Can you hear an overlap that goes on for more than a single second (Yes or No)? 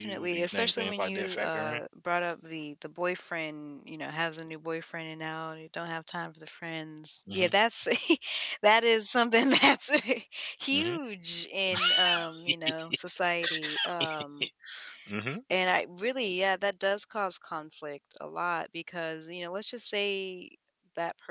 Yes